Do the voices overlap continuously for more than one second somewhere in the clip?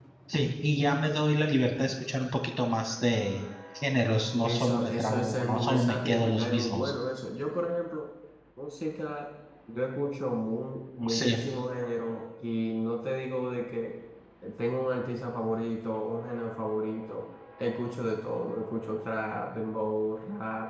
Yes, from 4.4 s

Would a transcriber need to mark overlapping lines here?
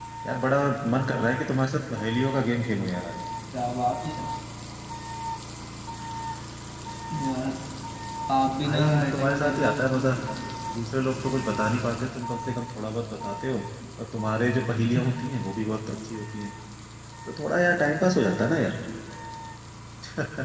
Yes, from 8.6 s

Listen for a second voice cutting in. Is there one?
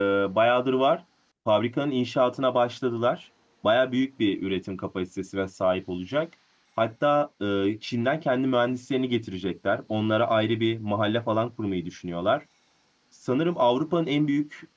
No

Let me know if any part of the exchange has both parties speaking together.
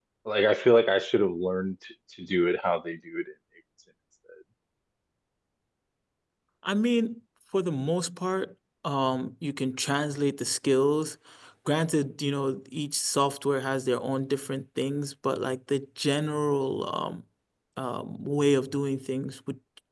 No

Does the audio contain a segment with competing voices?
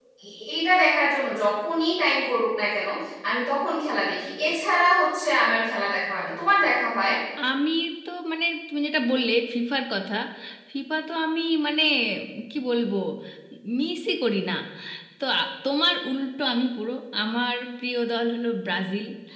No

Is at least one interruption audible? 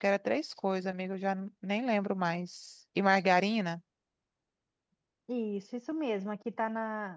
No

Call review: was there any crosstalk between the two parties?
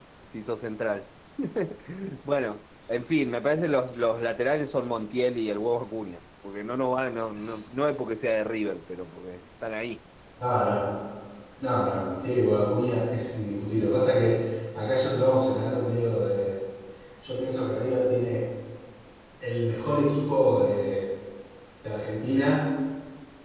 No

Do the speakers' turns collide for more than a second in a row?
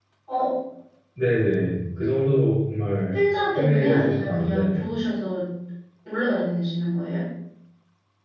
Yes, from 3.5 s

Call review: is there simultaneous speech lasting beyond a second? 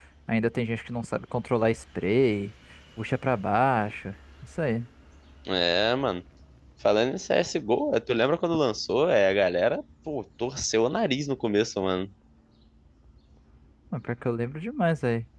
No

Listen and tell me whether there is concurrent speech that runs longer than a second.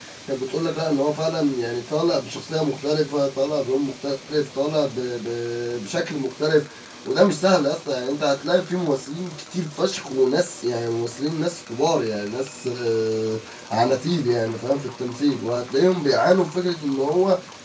No

